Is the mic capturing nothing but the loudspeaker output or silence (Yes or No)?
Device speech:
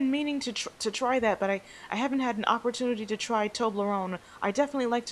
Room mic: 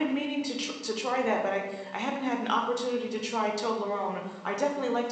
Yes